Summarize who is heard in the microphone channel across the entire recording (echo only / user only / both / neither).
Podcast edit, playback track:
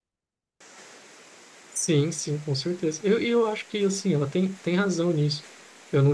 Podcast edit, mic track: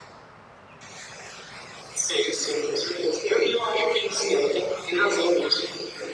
echo only